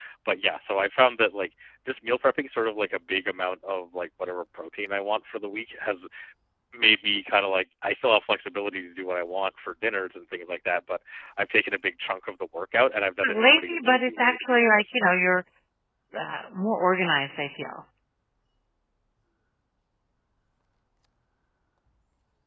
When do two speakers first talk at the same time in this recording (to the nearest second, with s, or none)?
13 s